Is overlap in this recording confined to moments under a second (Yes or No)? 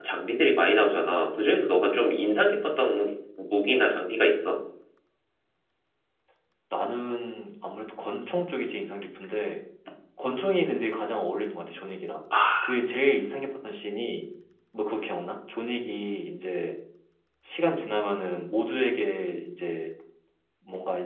Yes